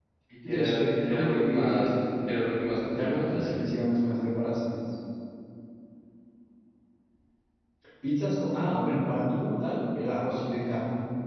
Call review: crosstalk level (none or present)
present